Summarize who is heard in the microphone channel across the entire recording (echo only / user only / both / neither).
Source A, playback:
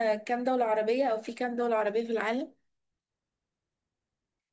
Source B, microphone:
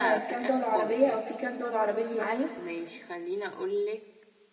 both